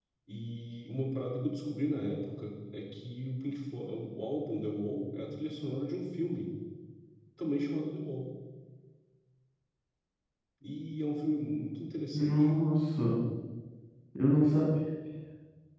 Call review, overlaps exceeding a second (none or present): none